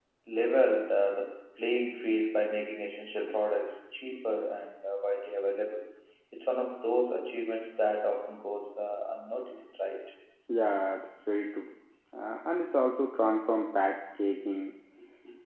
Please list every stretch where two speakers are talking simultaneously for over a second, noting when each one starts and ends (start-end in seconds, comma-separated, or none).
none